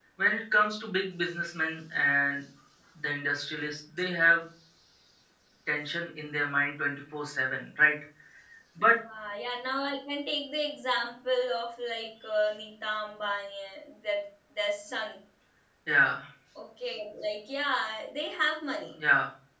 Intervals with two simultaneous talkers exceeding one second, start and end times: none

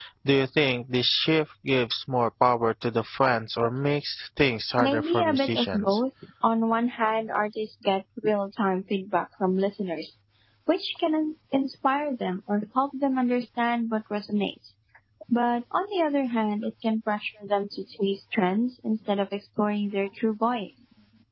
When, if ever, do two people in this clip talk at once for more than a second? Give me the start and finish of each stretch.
4.8-6.0

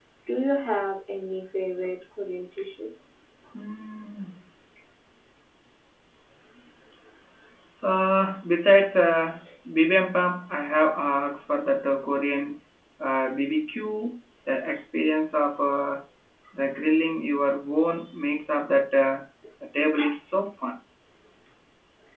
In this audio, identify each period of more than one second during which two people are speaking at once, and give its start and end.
none

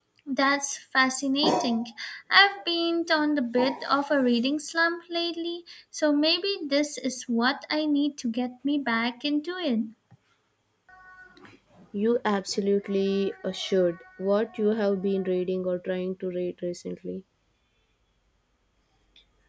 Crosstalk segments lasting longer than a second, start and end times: none

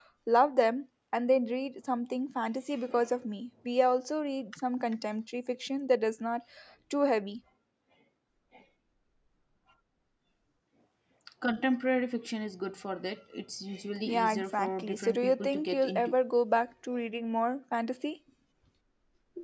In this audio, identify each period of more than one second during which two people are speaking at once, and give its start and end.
14.1-16.1

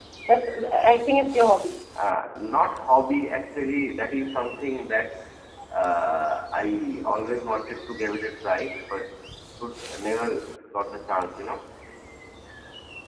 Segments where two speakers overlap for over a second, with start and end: none

